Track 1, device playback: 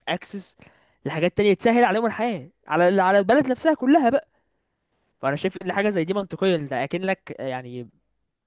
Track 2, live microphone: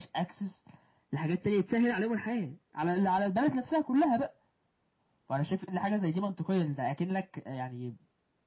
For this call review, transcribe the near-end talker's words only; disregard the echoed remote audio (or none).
none